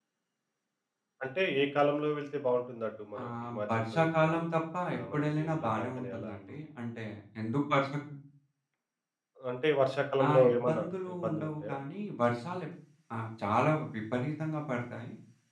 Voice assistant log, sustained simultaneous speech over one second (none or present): present